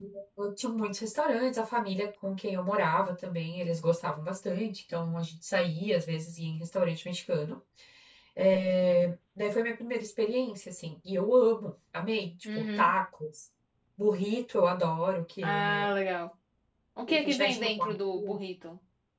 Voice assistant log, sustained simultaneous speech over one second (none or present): present